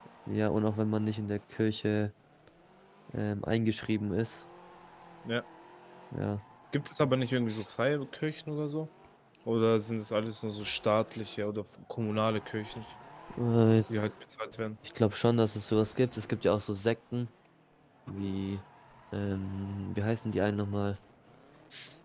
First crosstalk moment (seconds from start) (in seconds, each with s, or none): none